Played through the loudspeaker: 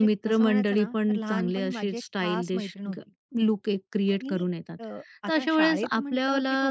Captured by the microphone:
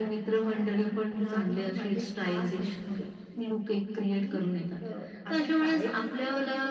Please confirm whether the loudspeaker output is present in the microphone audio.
Yes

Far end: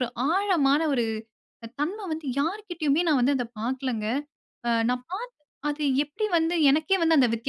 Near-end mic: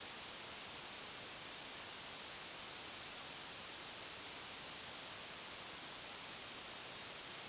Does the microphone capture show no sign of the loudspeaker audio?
Yes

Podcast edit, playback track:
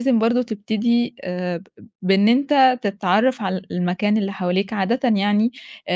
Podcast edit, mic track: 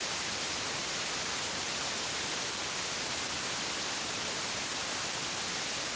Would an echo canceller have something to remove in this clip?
No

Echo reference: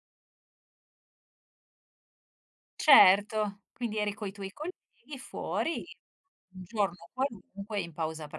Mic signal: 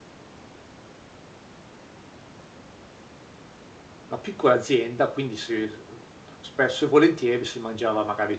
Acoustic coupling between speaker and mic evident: No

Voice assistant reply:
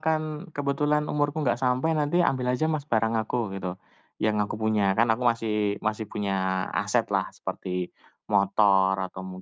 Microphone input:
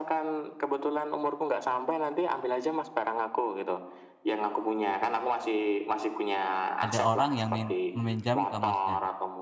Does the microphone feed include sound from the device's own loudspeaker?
Yes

